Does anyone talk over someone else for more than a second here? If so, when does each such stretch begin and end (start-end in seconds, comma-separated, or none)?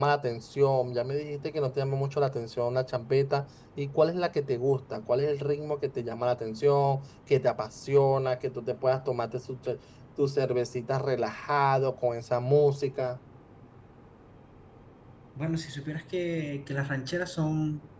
none